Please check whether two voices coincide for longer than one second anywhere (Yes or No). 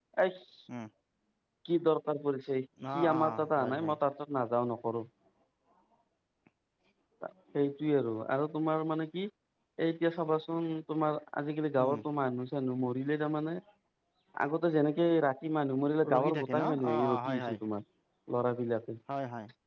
Yes